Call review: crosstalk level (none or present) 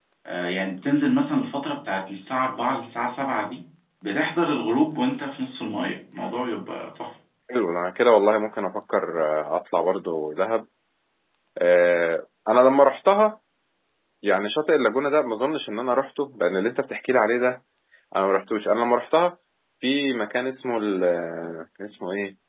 none